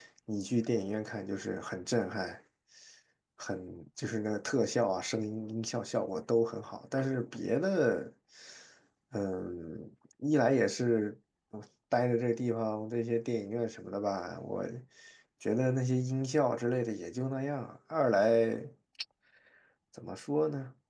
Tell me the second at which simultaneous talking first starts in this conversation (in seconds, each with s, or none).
none